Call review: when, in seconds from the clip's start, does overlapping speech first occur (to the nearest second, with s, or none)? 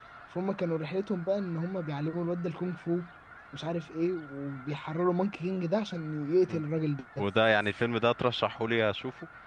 none